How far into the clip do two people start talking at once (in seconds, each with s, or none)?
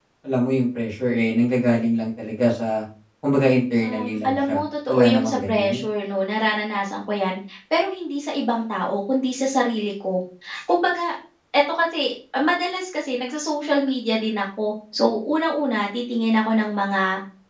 3.8 s